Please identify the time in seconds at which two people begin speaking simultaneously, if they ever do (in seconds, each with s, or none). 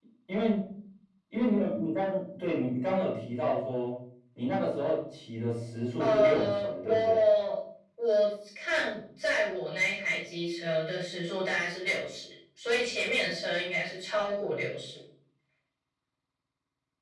6.0 s